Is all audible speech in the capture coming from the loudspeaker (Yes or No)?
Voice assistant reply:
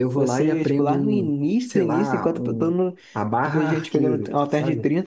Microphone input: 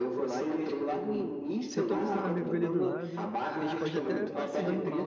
No